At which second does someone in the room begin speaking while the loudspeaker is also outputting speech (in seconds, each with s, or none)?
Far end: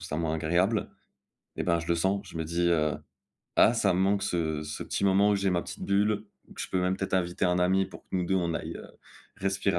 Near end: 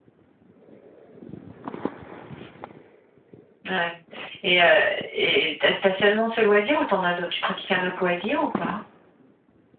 3.7 s